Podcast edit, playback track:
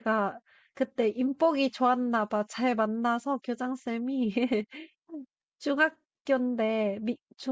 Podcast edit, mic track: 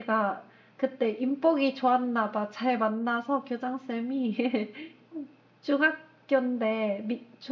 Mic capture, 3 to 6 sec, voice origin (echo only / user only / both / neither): echo only